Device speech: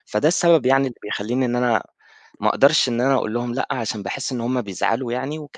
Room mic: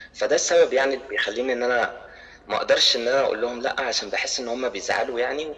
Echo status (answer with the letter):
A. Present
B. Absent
A